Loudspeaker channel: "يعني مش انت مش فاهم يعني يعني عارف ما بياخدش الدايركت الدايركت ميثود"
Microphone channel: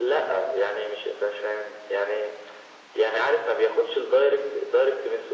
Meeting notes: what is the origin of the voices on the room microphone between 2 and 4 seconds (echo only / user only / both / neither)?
echo only